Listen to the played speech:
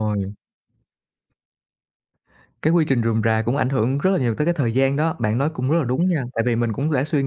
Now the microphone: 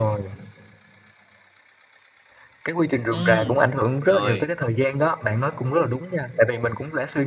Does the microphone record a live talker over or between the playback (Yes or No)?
Yes